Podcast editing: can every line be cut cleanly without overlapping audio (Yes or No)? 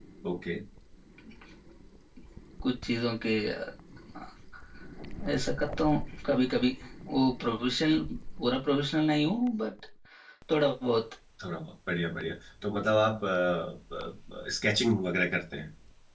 Yes